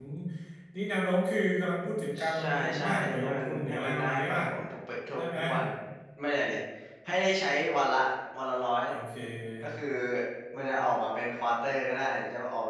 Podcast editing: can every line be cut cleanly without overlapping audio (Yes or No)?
No